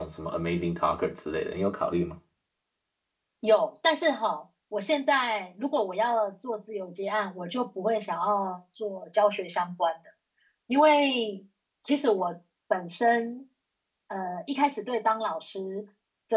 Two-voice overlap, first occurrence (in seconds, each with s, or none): none